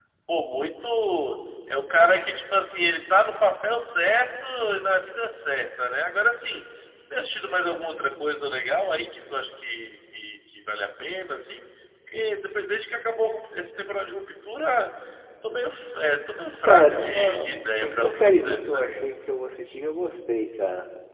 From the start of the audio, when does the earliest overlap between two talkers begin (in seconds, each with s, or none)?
16.6 s